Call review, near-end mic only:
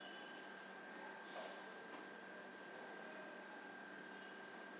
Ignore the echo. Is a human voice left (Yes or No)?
No